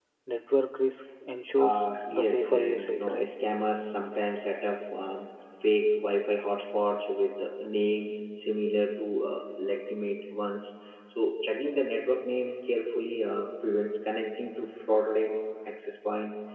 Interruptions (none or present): present